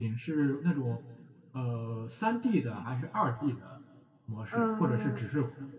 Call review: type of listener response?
listening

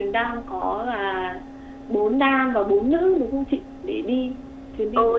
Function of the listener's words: taking over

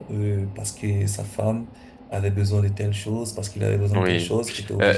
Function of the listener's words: taking over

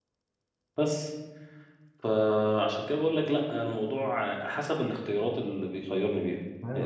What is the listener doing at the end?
taking over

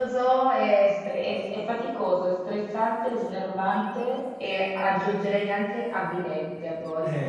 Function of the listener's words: taking over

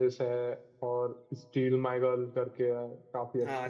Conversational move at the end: taking over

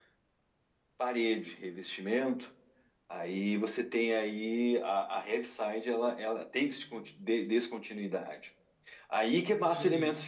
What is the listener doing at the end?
listening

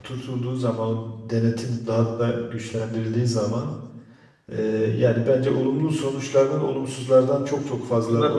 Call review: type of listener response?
taking over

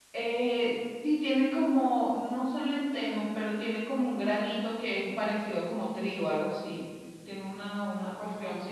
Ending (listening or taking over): listening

